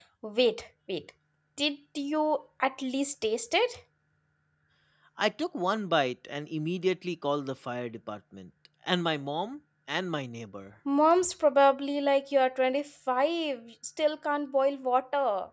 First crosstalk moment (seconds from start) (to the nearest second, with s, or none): none